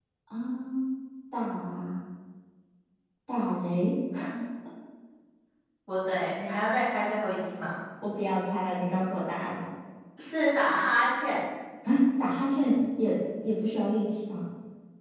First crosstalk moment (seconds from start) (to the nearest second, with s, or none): none